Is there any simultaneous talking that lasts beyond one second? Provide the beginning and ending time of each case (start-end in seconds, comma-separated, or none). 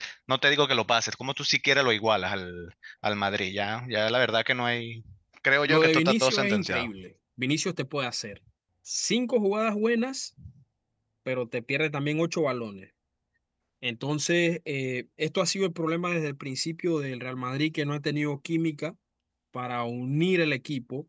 5.7-6.9